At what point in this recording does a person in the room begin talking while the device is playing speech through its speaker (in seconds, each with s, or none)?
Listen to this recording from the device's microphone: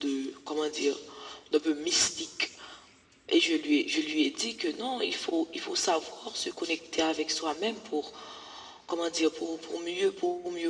none